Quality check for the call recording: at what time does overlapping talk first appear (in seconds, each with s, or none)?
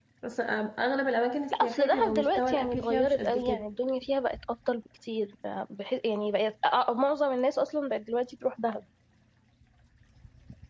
1.5 s